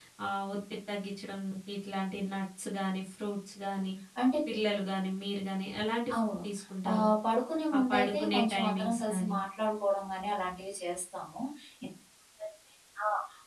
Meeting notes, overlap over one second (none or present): present